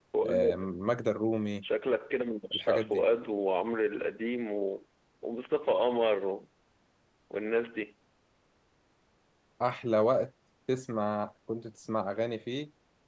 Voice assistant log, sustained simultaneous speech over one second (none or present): none